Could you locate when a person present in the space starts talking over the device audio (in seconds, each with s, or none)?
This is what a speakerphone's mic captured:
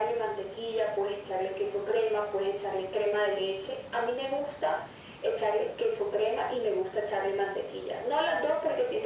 none